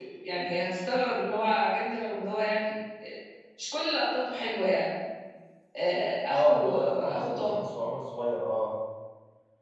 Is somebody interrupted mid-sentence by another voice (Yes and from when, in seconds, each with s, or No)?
Yes, from 6.3 s